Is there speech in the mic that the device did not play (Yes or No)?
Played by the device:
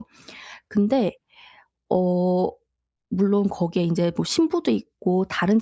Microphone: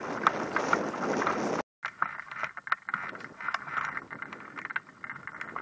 No